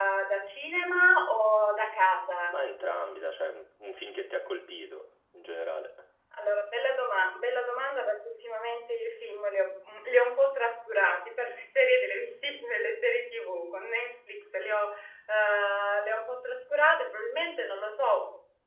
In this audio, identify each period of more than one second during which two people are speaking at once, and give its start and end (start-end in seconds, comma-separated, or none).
none